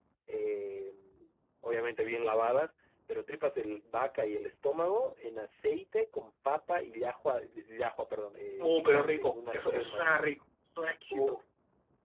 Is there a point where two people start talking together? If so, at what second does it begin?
8.6 s

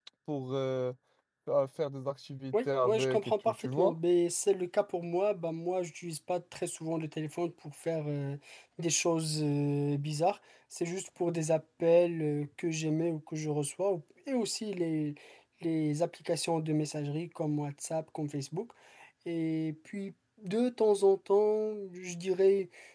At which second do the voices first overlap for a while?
2.5 s

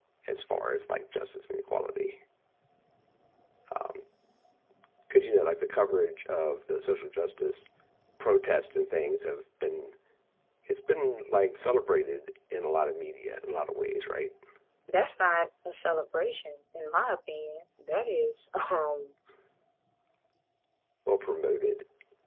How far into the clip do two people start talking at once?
none

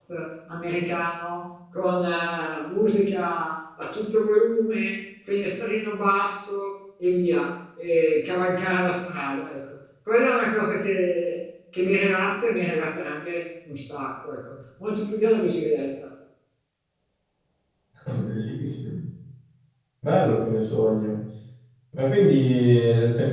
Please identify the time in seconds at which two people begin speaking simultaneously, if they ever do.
none

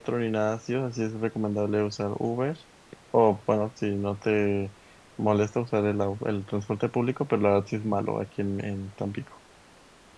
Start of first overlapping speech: none

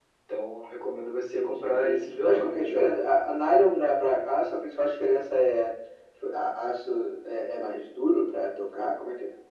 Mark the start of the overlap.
1.3 s

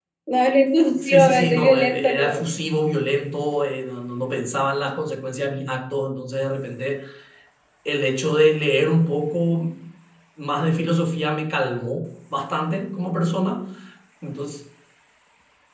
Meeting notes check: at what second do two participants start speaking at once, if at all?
1.0 s

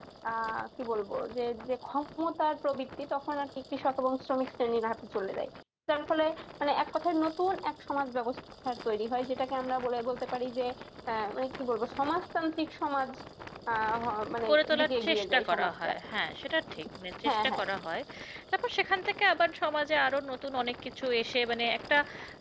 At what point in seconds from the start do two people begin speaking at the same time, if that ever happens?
14.5 s

